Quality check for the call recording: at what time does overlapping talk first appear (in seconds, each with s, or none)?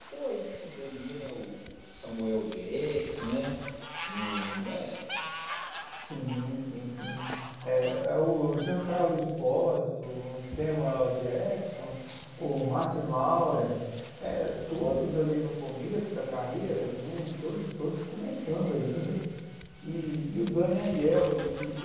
none